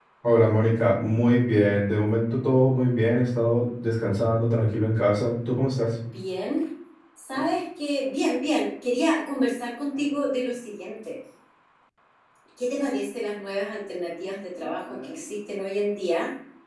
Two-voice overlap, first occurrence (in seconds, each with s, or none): none